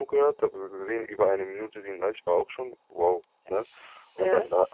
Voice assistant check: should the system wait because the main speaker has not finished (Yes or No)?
Yes